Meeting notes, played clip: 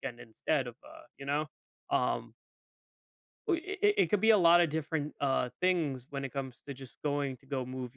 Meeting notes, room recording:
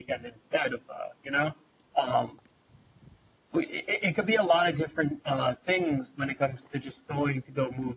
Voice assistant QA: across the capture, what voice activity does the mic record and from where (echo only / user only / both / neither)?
echo only